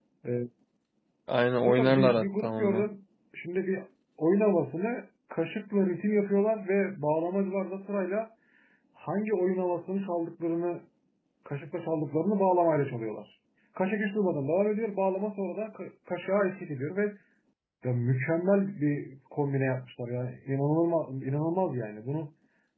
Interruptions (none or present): present